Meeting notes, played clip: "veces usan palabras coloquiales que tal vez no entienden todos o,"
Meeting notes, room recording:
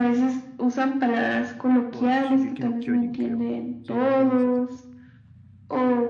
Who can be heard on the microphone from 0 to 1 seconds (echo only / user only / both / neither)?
echo only